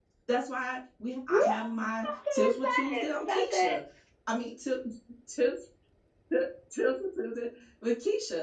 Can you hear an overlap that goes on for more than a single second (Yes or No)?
Yes